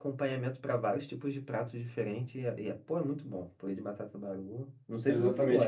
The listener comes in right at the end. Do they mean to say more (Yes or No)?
Yes